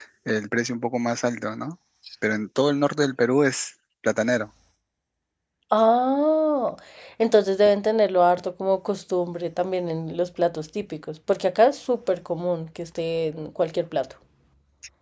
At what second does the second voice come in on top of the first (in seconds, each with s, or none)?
none